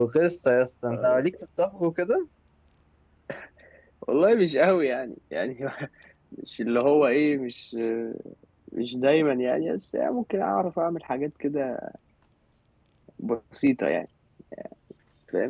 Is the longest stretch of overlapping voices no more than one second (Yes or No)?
Yes